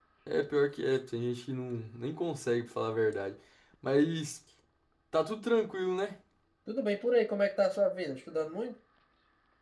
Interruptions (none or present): none